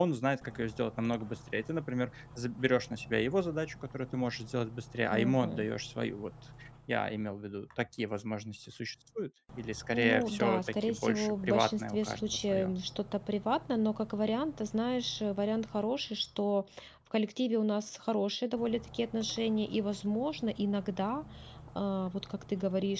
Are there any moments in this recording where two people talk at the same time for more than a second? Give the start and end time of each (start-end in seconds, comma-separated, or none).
9.9-12.7